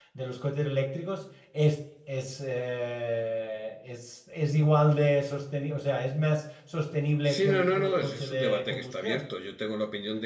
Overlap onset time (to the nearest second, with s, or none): 7 s